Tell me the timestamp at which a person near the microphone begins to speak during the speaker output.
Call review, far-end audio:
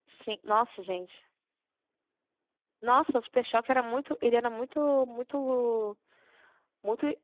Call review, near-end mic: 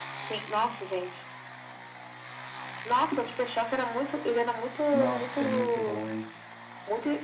5 s

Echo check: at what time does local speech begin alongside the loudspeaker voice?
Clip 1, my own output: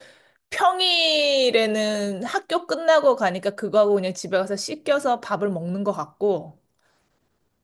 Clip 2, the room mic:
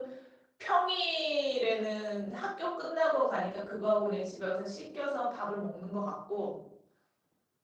none

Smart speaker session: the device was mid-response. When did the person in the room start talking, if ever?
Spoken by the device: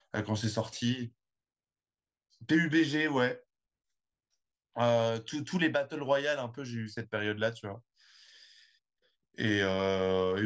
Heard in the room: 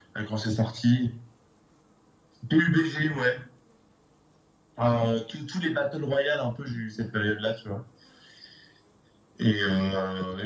none

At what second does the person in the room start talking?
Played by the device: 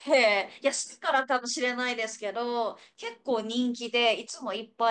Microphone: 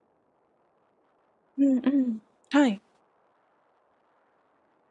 2 s

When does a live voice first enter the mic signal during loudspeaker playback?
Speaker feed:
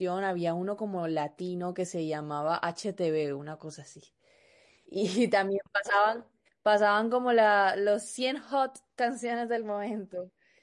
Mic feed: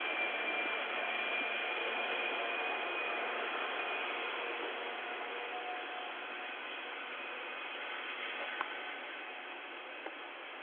none

